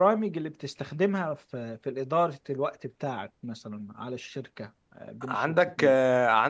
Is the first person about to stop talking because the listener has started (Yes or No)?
Yes